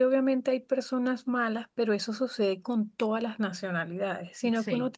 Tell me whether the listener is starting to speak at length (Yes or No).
No